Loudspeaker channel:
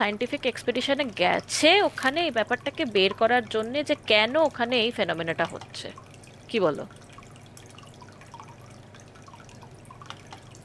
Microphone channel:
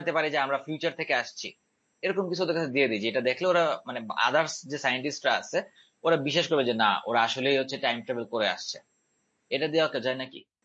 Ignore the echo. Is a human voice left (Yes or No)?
Yes